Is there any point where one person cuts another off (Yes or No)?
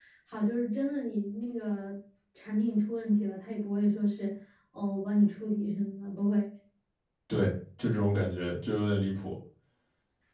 No